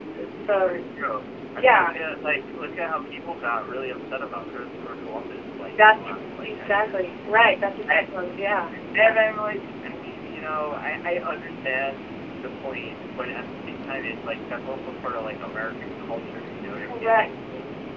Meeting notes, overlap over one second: present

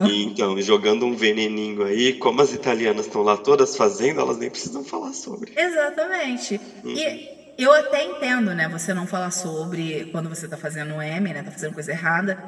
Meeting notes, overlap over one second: none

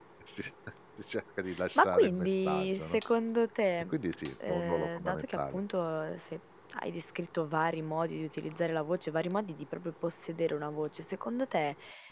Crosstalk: present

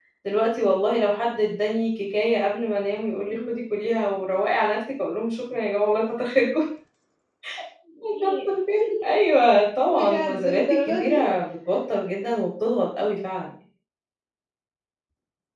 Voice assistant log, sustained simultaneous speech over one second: present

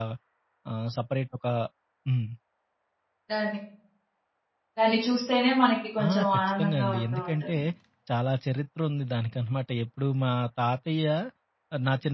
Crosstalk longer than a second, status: present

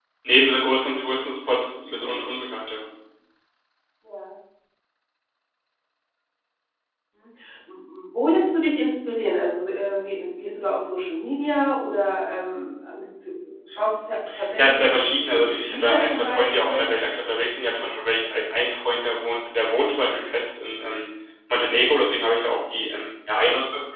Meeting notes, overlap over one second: present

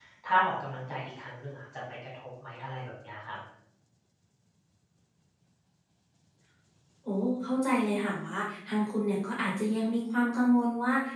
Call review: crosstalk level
none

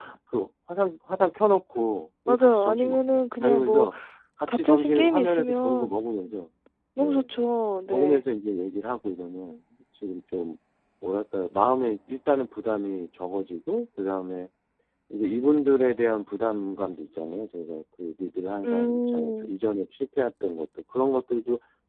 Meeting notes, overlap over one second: present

